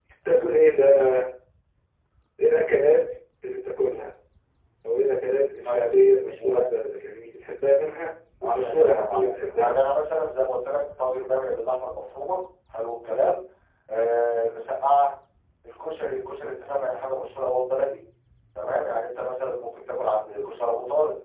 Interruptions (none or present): present